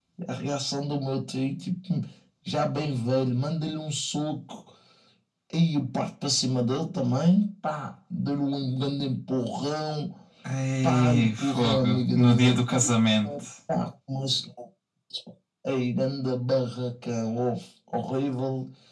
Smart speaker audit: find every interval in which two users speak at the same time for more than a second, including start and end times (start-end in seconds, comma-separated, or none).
10.8-12.9